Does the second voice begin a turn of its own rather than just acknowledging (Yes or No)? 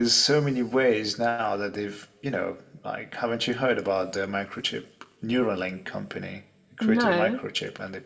No